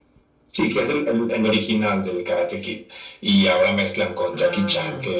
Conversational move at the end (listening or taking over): listening